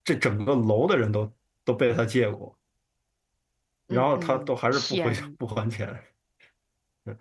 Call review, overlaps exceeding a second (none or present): present